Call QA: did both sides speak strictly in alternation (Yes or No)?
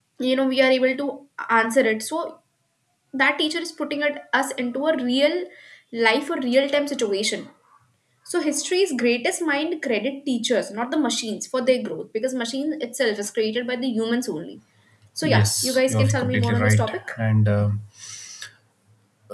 No